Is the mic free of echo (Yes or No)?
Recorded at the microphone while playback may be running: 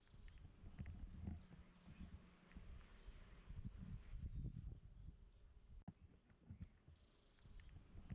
Yes